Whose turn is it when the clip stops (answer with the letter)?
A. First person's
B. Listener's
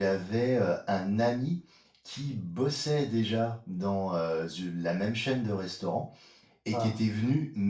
A